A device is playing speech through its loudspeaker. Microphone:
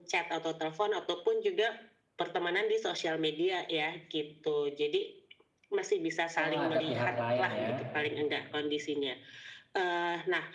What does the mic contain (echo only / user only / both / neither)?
both